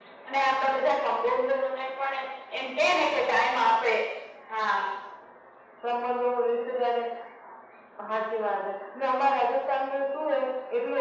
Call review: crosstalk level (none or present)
none